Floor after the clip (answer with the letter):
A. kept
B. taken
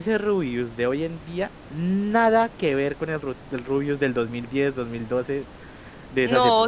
B